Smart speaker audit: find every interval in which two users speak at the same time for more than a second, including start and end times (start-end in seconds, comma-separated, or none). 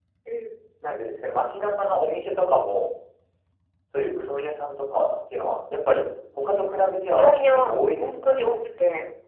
7.1-8.3